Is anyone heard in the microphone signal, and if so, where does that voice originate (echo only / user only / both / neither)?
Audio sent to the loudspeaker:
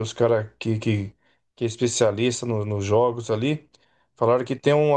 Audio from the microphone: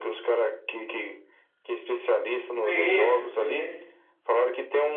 both